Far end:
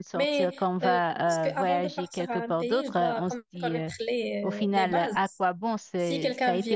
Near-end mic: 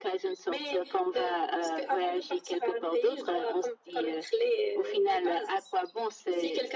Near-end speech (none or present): none